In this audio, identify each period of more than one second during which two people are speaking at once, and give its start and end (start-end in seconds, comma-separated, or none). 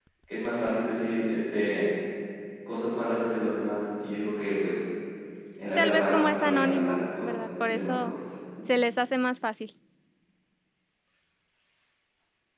5.8-8.1